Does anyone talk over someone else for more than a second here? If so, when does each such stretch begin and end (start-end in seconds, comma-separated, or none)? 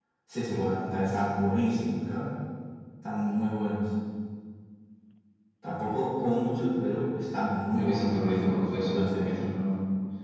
7.7-9.4